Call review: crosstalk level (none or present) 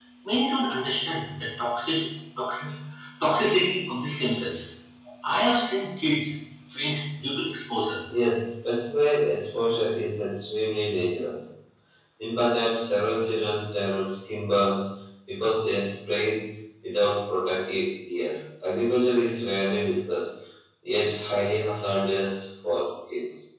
none